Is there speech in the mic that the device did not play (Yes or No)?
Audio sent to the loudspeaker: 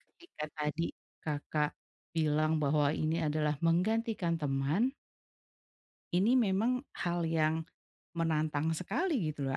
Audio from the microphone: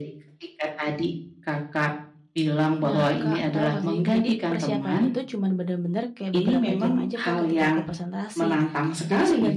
Yes